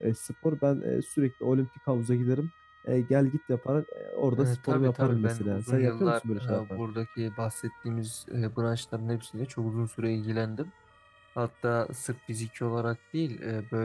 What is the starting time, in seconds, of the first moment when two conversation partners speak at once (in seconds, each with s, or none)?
4.4 s